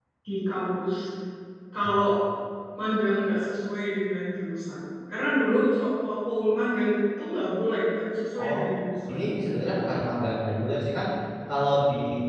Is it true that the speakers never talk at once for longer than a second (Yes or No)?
Yes